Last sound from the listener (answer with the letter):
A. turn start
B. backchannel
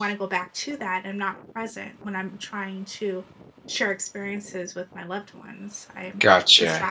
A